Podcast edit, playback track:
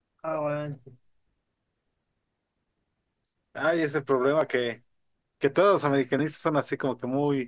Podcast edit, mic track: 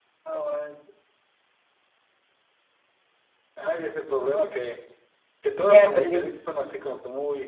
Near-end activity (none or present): present